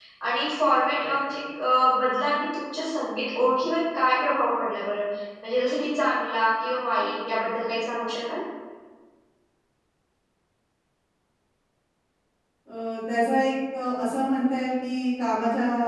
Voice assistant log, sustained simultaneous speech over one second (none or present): none